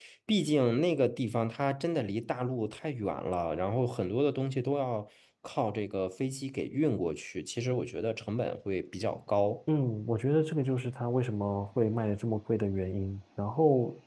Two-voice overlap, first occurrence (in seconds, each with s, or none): none